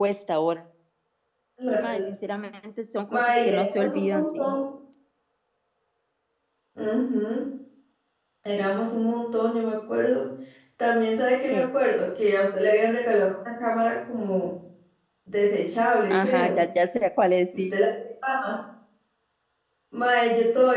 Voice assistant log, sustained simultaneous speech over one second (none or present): present